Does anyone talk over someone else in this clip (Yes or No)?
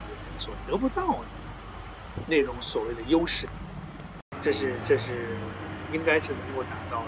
No